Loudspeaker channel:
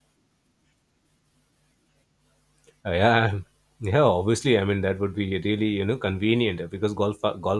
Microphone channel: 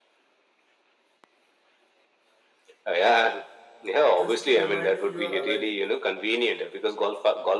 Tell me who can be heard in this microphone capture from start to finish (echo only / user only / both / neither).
both